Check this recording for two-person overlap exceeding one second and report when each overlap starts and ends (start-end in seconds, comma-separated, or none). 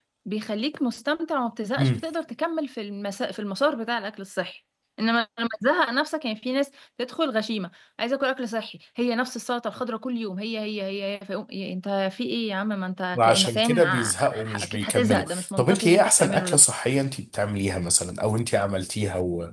13.1-16.6